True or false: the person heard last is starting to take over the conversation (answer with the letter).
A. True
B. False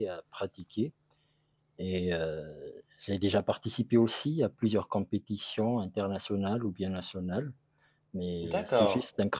B